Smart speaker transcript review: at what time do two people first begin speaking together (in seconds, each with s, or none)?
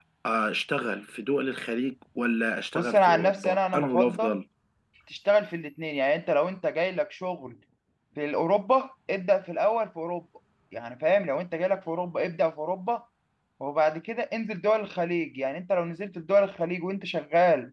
2.8 s